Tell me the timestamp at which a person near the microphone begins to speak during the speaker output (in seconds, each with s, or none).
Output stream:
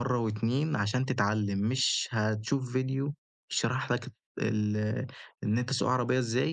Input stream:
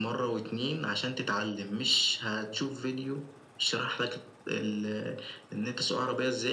none